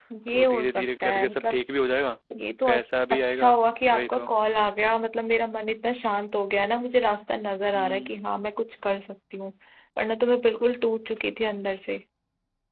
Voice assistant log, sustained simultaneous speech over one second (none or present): present